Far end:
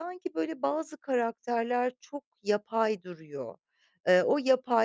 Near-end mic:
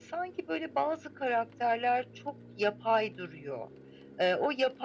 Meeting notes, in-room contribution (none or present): none